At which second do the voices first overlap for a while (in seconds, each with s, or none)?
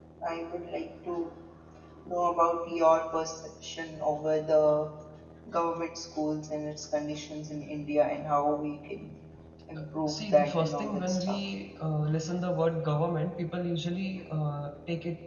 10.1 s